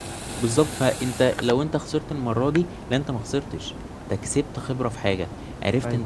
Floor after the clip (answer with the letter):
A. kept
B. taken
A